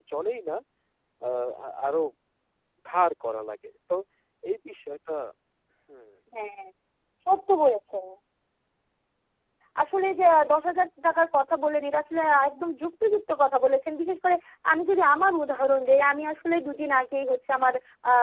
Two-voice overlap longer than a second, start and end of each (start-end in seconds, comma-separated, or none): none